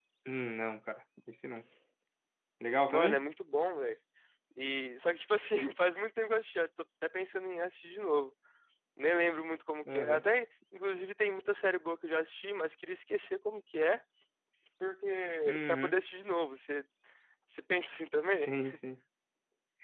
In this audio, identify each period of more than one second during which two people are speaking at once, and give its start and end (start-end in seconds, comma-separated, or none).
none